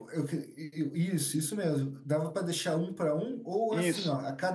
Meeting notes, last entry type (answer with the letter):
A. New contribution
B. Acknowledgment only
B